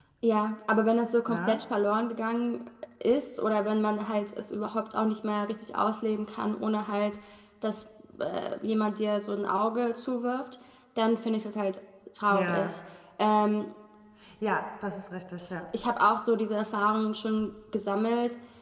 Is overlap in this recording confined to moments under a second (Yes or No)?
Yes